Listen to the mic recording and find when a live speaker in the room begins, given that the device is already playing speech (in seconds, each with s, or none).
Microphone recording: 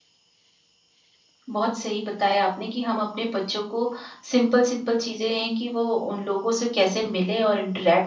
1.5 s